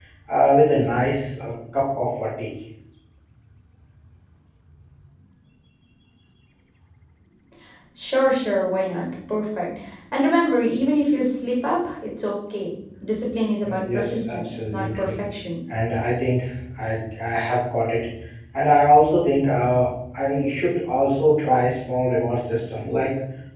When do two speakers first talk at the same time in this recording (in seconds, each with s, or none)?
13.6 s